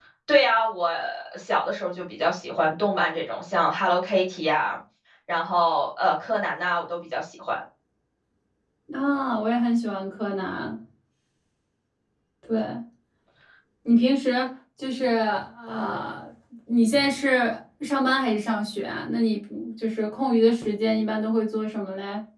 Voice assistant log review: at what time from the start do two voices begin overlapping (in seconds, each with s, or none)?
none